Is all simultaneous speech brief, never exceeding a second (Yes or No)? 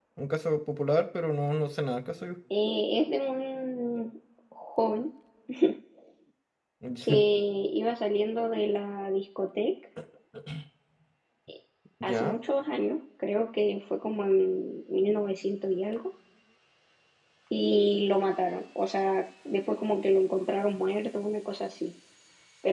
Yes